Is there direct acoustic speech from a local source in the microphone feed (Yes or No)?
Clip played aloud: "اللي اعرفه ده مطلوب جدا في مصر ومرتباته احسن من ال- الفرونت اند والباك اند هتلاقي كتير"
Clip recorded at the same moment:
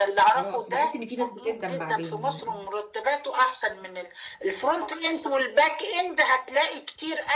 Yes